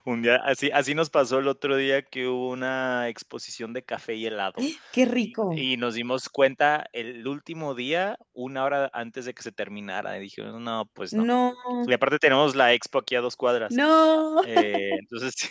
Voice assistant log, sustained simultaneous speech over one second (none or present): none